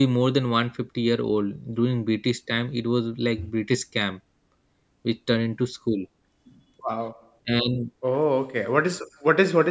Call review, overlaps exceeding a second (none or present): none